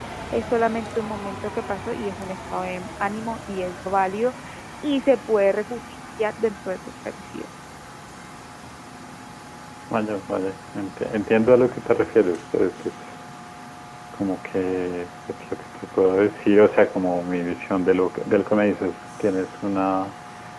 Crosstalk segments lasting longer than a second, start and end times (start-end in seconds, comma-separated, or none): none